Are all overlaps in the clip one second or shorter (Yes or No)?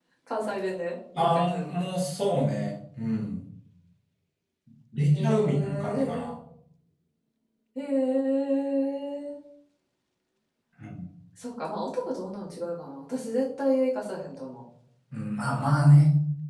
No